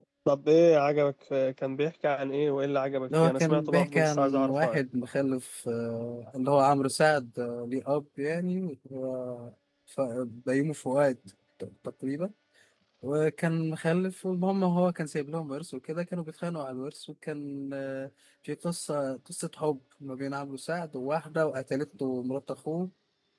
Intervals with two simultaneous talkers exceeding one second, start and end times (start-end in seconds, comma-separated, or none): 3.2-4.8